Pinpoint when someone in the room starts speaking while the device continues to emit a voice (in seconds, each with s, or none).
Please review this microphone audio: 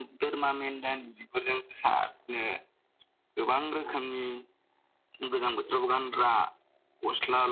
none